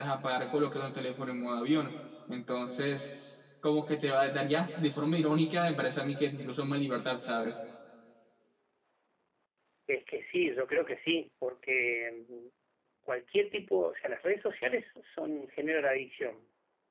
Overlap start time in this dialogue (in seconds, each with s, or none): none